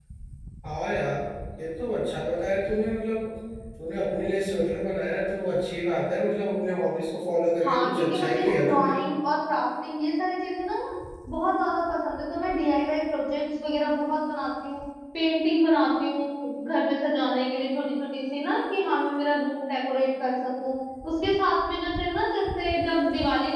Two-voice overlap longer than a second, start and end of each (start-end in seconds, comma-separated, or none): 7.6-8.9